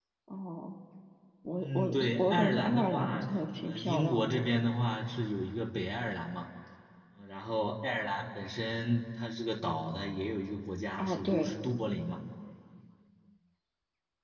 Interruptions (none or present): present